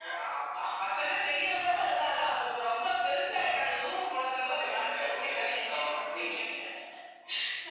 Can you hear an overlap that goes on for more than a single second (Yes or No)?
Yes